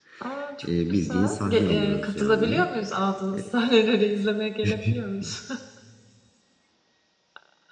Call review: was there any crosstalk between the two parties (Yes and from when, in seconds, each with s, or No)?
Yes, from 0.9 s